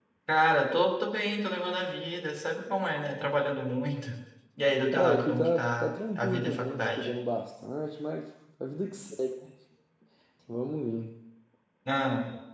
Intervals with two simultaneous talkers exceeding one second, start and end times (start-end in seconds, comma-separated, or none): 4.9-7.1